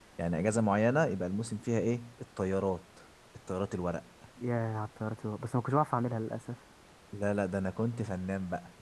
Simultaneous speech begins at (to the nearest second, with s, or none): none